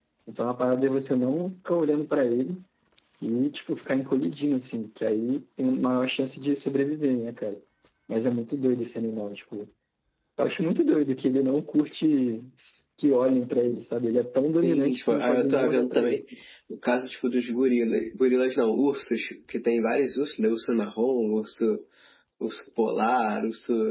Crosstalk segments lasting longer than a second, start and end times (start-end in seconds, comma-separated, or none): 14.6-16.2